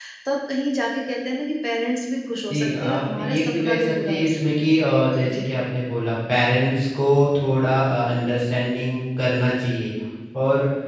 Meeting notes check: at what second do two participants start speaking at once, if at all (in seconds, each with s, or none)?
2.5 s